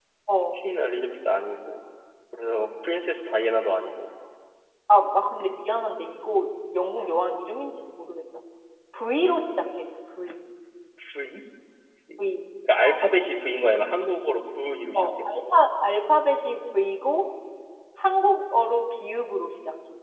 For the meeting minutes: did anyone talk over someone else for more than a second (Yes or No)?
No